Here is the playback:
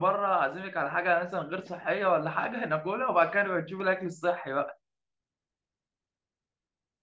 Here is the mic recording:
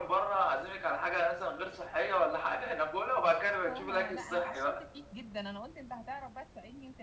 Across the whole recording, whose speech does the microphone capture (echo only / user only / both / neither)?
both